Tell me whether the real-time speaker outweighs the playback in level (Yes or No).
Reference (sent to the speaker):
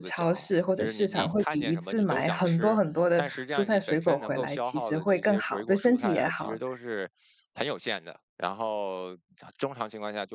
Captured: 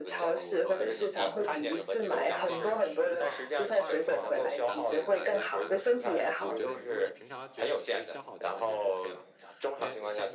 No